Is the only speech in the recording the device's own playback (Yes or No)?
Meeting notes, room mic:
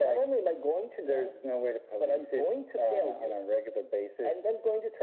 Yes